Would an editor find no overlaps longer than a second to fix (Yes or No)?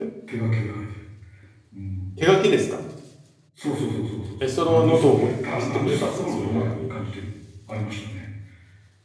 No